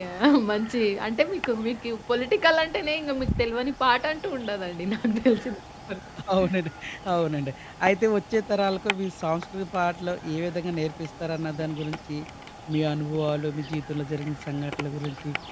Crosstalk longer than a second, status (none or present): none